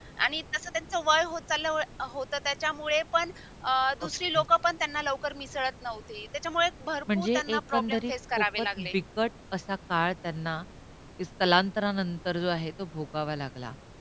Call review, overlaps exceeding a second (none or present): present